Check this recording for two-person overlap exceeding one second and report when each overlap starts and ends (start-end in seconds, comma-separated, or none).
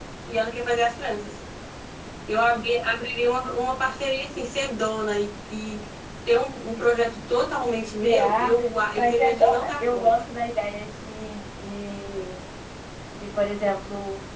8.9-10.1